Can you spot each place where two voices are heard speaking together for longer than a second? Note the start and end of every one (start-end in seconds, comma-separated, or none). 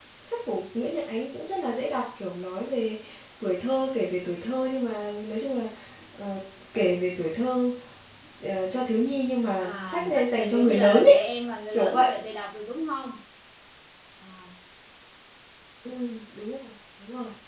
9.6-11.2